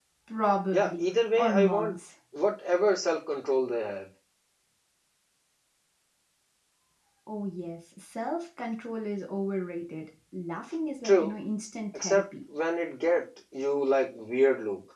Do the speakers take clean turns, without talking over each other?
No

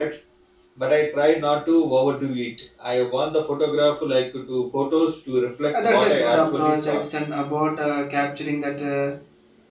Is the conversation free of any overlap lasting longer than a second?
No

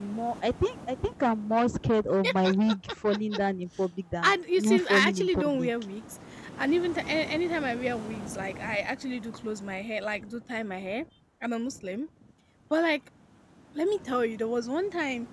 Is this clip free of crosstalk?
No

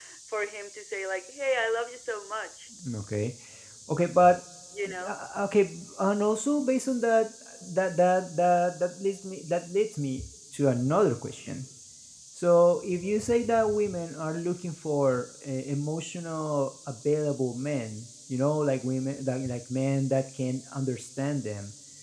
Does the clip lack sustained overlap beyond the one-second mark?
Yes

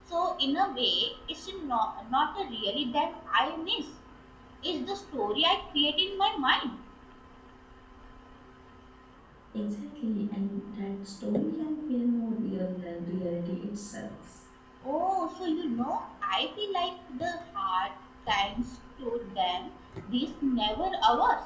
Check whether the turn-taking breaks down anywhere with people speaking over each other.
No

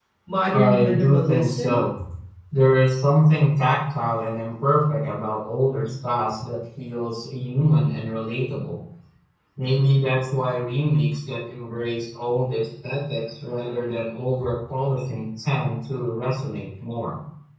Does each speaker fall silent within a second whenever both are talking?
No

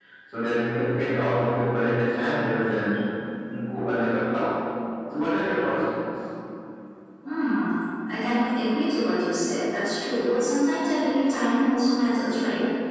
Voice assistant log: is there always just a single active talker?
Yes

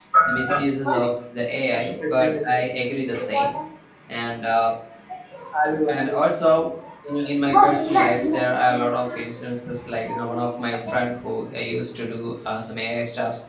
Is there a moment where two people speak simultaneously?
Yes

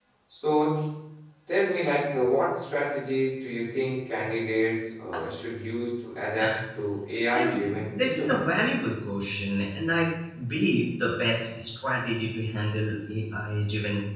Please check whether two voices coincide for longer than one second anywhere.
Yes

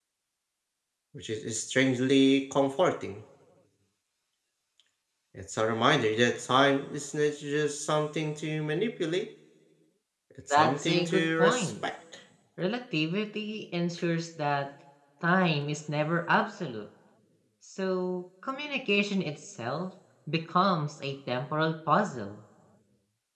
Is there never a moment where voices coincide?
No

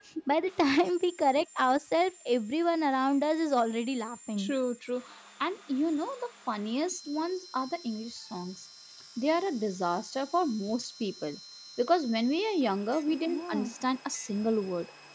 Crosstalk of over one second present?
No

